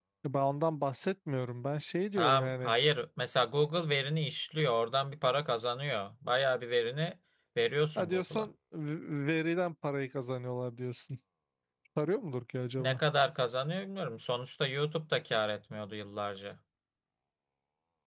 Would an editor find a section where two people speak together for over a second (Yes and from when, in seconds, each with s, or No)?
No